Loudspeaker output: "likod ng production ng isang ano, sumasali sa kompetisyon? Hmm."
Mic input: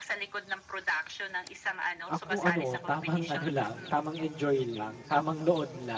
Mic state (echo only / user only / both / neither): both